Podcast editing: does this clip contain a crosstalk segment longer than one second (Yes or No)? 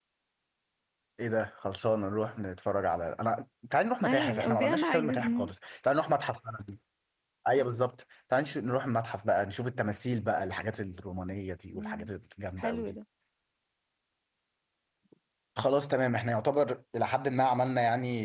Yes